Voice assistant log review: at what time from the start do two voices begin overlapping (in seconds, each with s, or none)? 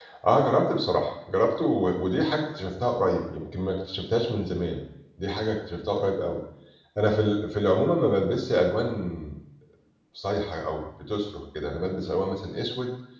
none